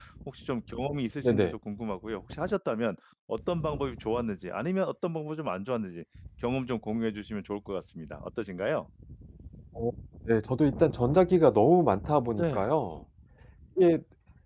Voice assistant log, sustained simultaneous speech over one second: none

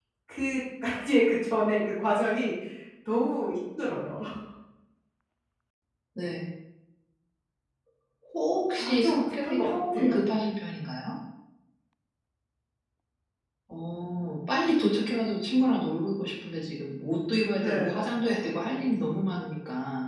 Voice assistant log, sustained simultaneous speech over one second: present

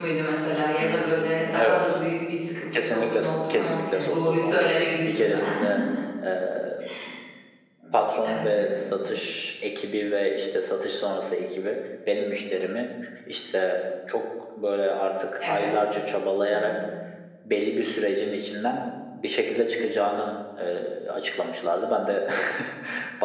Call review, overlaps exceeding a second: present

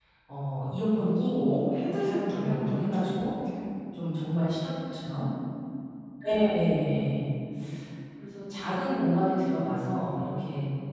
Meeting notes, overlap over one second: present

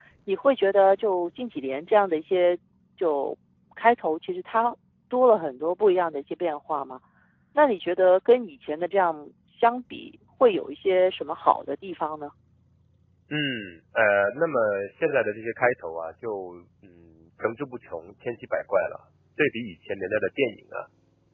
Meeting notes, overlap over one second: none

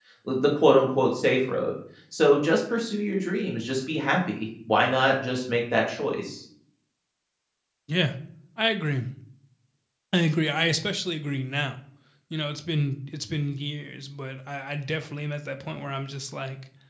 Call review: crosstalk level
none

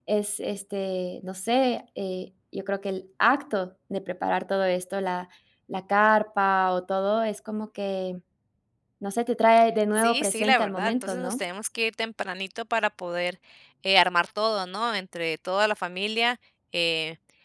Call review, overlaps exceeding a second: present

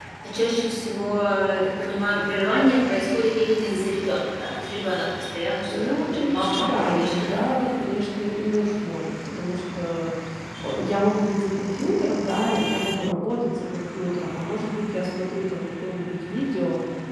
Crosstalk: present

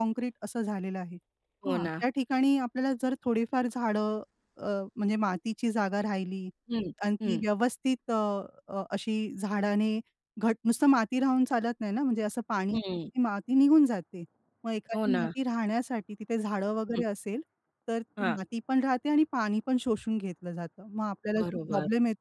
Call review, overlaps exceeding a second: none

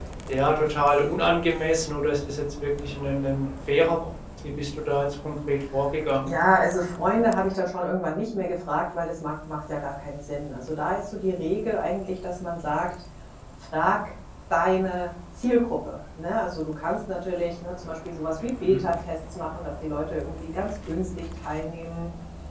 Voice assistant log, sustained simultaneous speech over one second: none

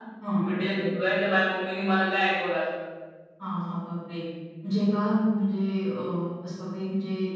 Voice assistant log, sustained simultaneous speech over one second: none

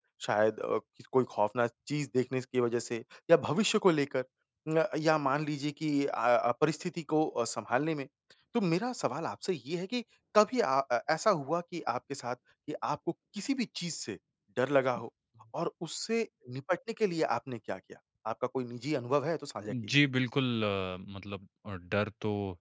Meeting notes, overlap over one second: none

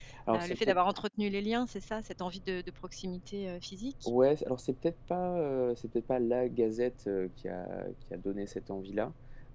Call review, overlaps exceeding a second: none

